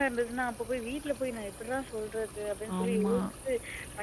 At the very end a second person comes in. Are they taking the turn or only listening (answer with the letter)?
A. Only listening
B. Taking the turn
A